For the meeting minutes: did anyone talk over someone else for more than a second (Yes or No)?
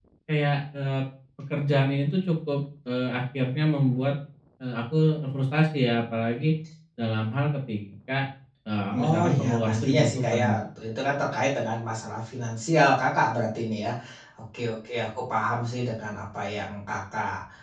Yes